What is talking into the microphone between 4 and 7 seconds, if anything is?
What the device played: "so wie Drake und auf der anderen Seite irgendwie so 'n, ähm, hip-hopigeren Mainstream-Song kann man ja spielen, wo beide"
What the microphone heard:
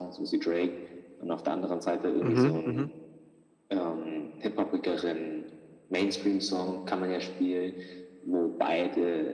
echo only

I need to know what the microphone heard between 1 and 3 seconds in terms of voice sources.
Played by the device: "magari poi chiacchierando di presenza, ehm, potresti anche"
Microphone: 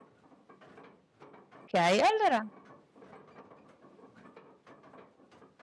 user only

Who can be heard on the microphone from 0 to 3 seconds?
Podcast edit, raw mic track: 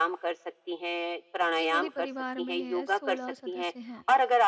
both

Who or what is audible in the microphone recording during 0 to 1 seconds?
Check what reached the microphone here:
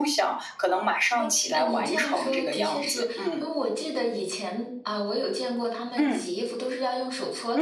echo only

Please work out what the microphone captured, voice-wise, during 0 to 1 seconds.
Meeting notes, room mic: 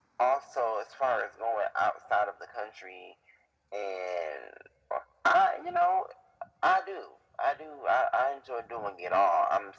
echo only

